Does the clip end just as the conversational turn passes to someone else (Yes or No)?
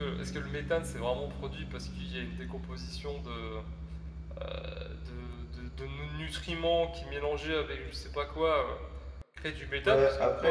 Yes